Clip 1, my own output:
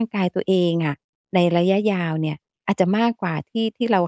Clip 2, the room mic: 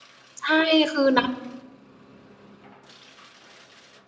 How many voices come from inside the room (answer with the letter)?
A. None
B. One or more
B